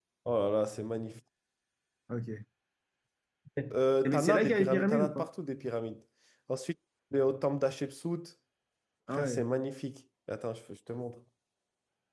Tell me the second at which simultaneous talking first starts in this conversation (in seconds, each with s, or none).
4.0 s